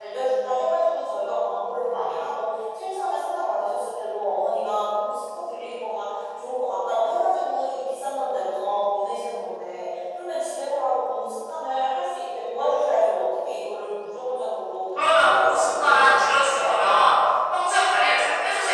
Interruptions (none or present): present